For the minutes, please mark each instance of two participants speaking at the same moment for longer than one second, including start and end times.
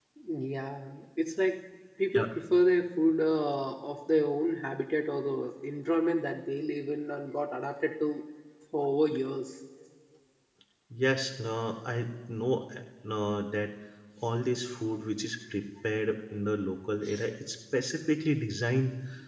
none

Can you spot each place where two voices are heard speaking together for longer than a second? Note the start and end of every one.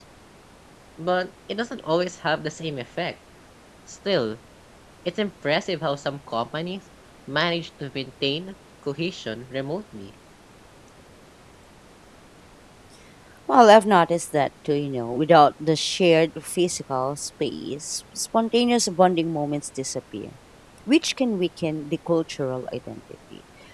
none

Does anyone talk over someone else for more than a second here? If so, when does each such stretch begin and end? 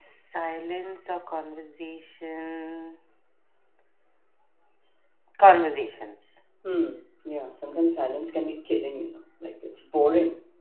none

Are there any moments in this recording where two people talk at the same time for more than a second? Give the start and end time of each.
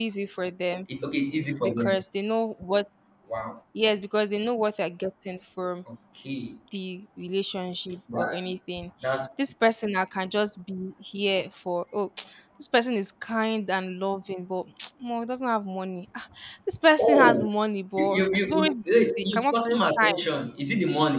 18.0-20.2

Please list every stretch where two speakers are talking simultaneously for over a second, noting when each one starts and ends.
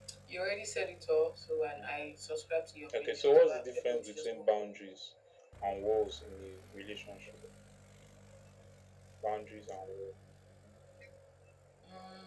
3.0-4.6

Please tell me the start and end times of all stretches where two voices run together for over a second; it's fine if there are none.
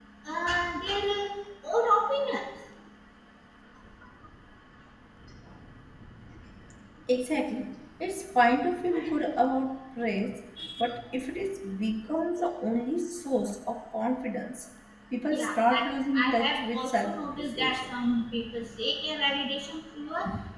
15.3-17.9

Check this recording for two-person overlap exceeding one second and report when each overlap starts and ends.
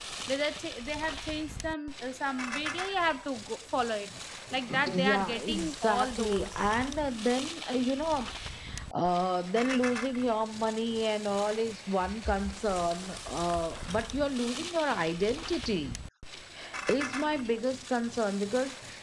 4.9-6.5

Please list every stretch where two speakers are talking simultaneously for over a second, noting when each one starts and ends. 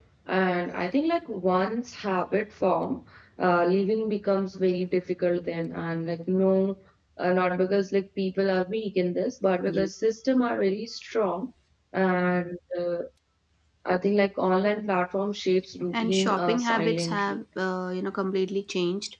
15.9-17.4

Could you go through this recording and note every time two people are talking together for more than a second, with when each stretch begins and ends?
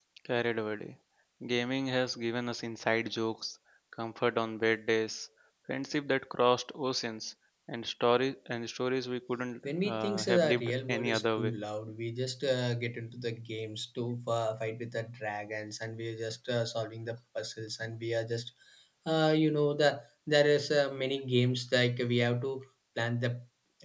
9.6-11.6

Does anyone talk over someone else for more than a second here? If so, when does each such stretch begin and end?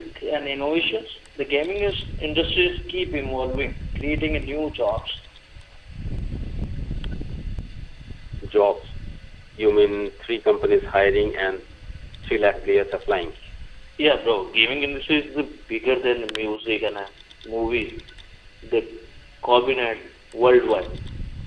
none

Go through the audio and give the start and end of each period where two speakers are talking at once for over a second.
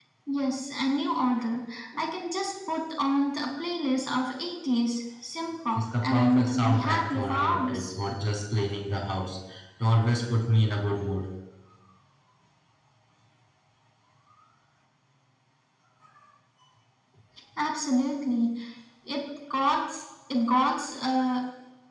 5.8-7.9

